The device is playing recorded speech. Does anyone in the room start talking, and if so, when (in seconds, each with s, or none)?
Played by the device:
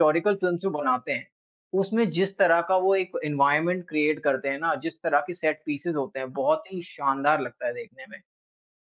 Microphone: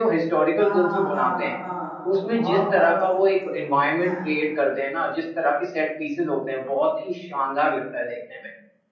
0.6 s